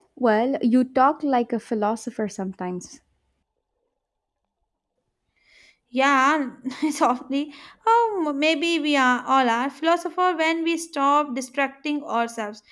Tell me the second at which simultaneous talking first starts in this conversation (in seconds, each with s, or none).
none